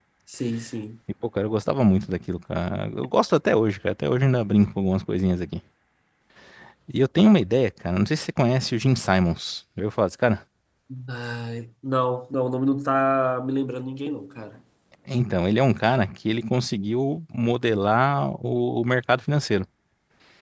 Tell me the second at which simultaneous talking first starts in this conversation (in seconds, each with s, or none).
none